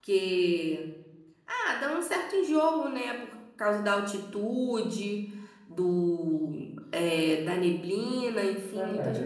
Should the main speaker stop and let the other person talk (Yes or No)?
Yes